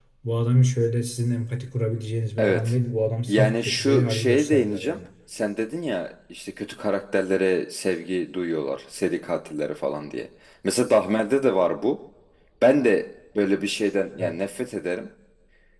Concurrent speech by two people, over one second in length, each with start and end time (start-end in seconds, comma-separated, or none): 3.3-5.0